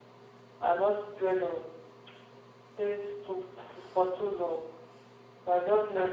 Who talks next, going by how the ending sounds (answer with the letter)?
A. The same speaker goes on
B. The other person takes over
B